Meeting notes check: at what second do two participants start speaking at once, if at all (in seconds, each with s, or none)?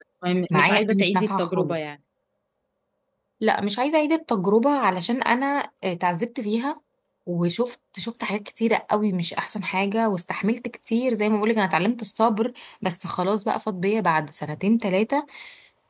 0.5 s